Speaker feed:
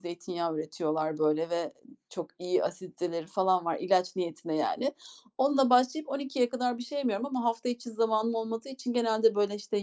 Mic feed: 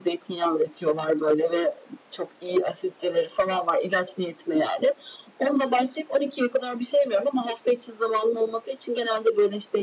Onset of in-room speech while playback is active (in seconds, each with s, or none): none